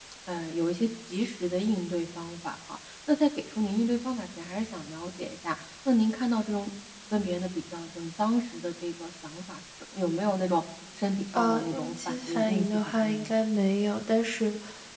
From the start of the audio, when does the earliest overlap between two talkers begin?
11.3 s

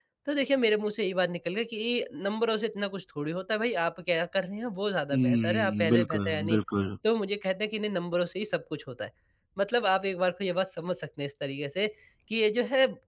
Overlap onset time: 5.1 s

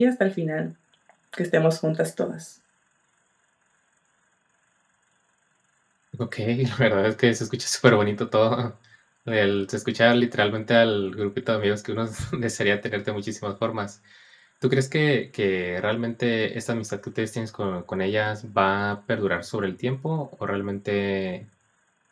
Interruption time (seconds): none

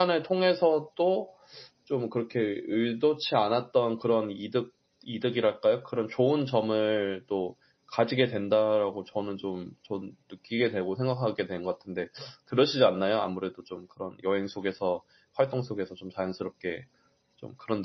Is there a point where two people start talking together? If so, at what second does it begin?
none

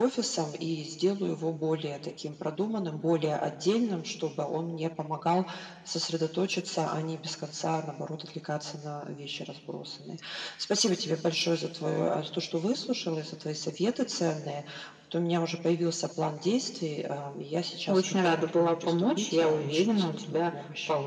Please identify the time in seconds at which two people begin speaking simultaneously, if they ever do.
17.9 s

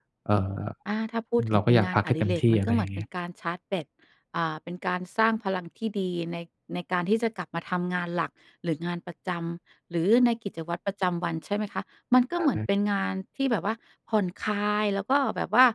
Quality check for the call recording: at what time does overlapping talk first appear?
1.5 s

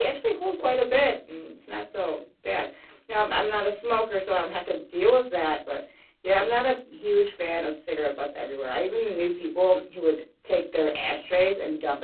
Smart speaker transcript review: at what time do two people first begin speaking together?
none

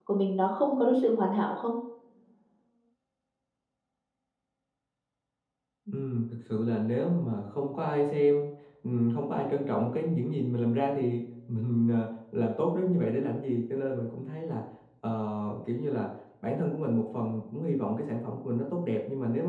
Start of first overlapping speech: none

